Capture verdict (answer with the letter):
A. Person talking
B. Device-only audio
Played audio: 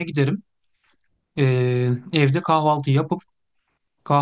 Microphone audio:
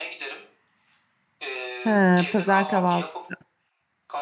A